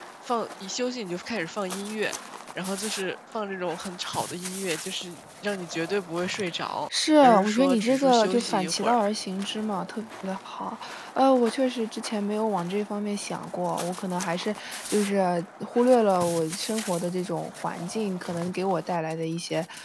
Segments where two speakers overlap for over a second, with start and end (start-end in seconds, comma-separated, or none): 6.9-9.0